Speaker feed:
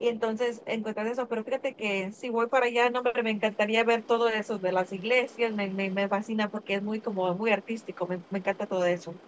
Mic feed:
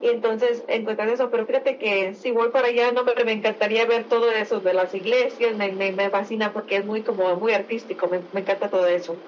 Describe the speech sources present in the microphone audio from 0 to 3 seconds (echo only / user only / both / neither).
echo only